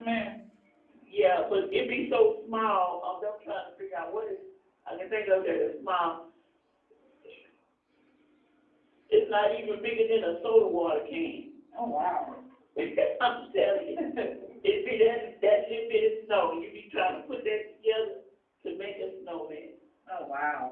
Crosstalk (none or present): none